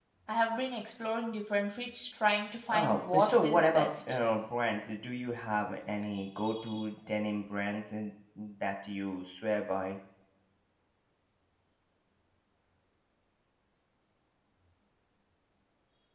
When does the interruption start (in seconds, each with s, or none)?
2.7 s